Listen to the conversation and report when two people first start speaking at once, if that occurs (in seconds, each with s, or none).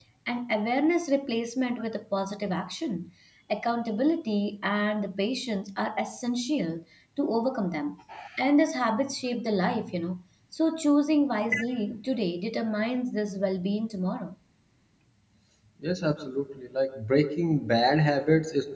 none